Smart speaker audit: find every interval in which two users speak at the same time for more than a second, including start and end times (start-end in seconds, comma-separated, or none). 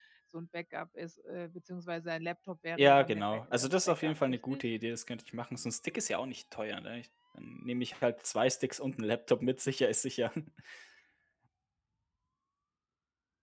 2.8-4.6